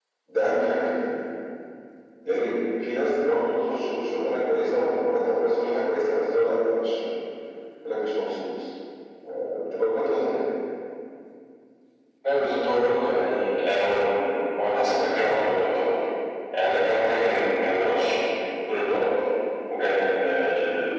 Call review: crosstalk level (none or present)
none